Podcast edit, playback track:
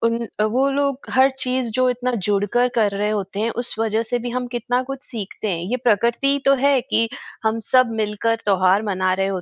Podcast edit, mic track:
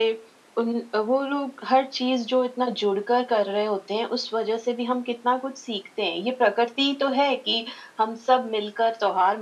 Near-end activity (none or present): none